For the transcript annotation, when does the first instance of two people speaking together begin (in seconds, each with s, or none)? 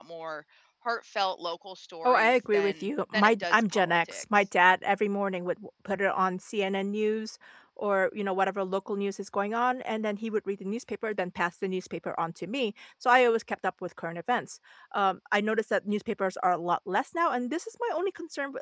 2.0 s